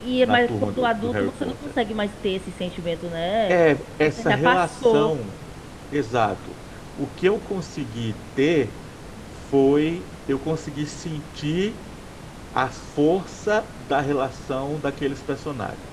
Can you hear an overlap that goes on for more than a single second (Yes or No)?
Yes